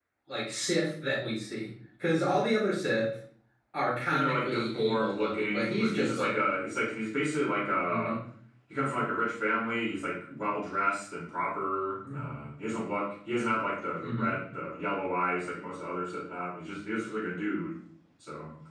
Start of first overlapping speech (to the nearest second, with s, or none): 4 s